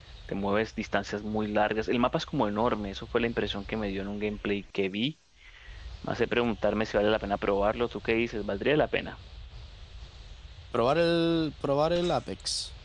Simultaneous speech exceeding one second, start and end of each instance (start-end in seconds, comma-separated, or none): none